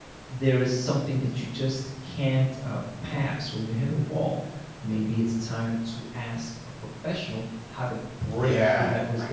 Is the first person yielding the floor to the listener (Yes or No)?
Yes